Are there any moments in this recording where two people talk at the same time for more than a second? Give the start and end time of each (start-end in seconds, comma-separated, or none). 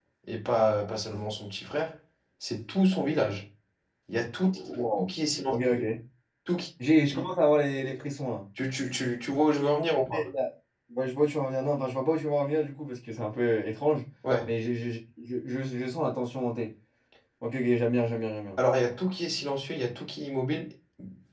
none